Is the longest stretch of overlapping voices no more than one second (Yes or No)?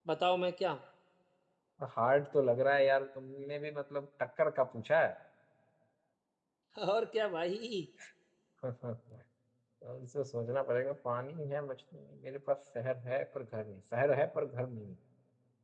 Yes